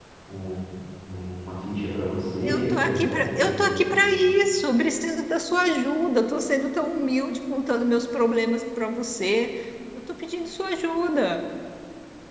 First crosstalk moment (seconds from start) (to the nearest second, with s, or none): 2 s